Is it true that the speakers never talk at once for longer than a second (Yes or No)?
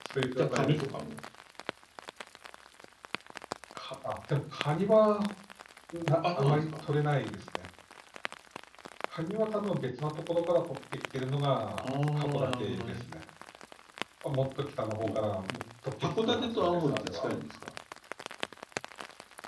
No